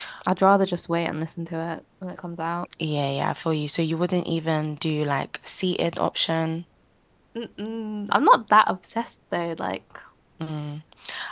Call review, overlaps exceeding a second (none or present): none